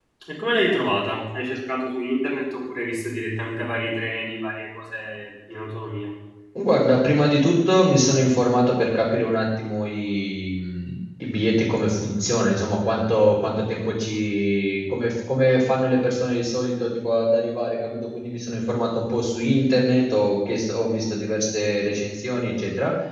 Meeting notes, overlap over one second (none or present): none